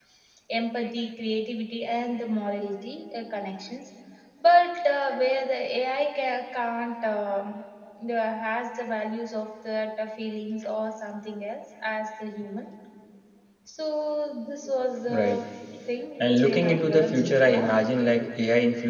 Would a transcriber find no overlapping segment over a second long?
No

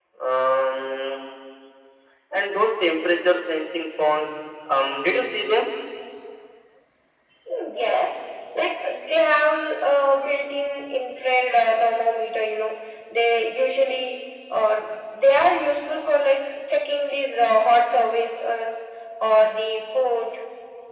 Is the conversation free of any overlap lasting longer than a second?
Yes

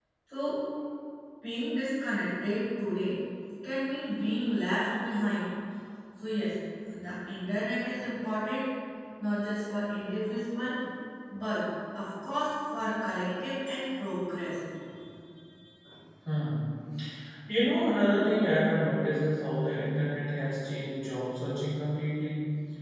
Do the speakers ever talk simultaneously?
No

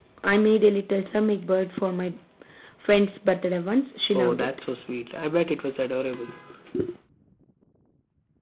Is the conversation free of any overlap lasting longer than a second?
Yes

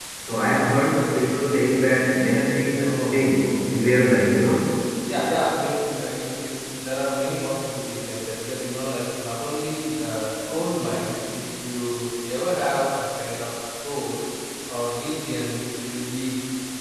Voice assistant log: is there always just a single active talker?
No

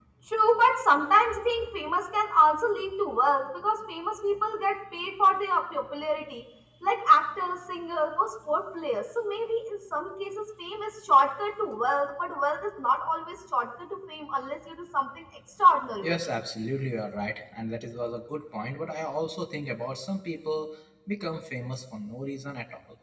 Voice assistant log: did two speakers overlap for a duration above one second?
No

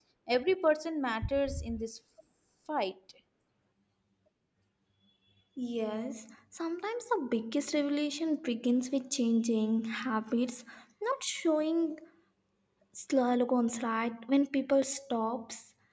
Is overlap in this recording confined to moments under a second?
Yes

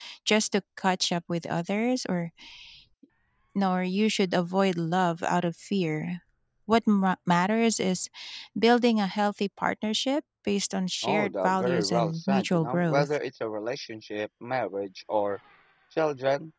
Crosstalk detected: Yes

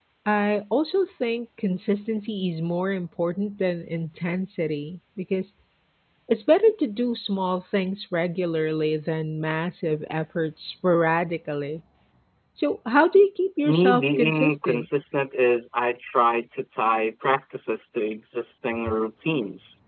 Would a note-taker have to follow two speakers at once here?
Yes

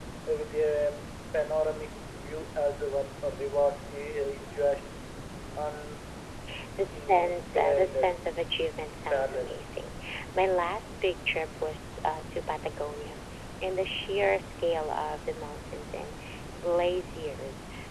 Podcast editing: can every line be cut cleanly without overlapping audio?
No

